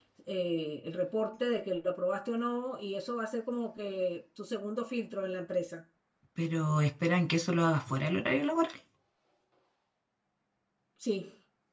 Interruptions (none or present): none